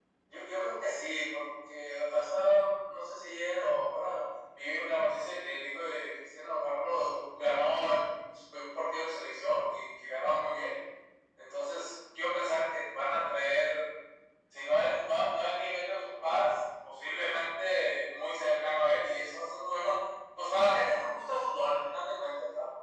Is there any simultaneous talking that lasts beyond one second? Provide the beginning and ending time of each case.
none

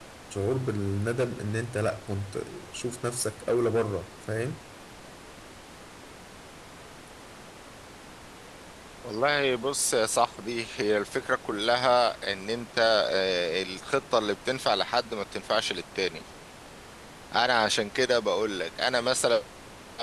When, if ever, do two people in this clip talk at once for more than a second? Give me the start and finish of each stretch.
none

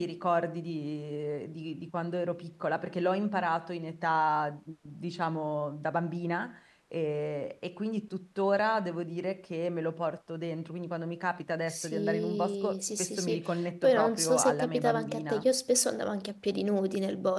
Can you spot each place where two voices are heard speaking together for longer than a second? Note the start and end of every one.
11.7-13.4, 13.8-15.4

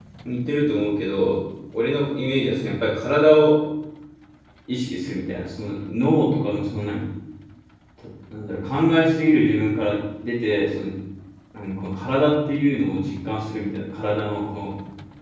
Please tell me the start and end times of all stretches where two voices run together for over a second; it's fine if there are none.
none

